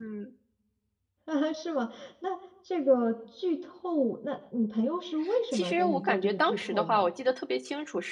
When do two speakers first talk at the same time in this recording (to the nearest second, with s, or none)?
6 s